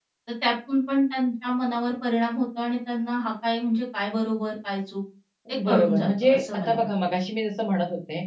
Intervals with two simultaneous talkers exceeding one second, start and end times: 5.7-6.9

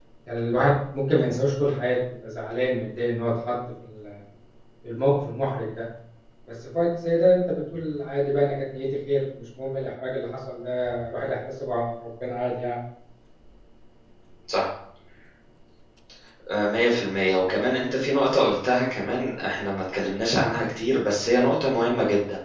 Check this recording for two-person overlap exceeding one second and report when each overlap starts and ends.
none

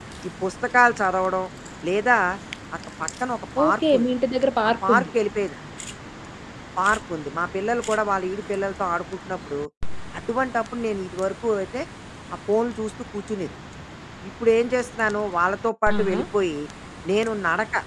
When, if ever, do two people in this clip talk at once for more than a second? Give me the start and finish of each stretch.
none

